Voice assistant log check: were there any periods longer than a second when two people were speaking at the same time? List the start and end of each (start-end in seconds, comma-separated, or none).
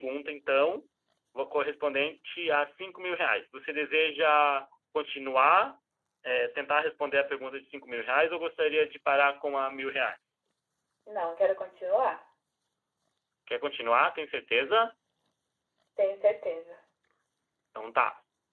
none